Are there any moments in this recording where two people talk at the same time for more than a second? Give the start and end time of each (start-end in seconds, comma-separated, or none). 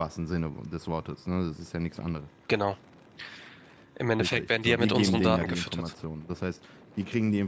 4.2-5.9